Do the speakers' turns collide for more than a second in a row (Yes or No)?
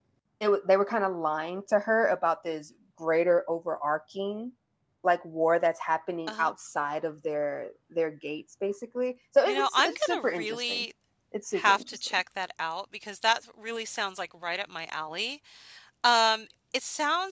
Yes